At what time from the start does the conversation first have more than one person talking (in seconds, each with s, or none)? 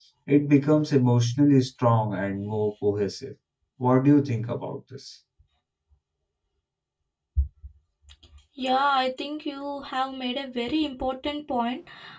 none